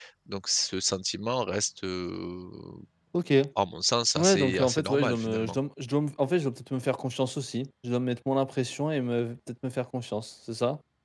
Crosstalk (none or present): present